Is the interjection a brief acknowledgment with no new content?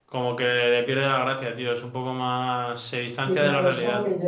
No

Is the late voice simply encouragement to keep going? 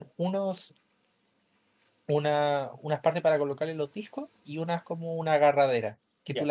Yes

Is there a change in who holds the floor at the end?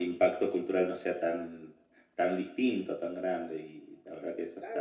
Yes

